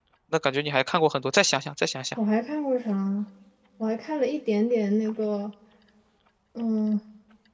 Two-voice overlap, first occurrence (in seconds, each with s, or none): none